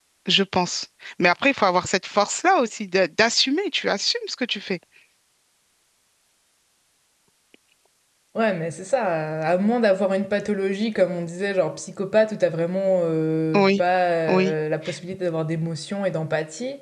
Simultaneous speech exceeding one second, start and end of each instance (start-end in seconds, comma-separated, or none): none